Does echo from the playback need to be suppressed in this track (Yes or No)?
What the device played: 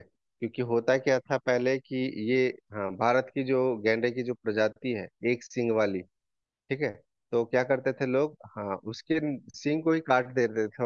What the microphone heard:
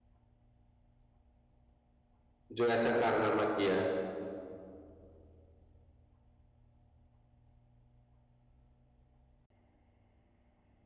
No